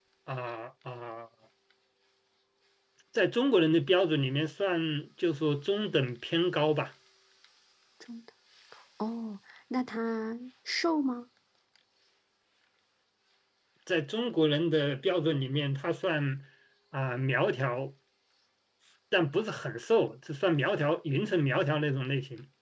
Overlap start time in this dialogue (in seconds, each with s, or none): none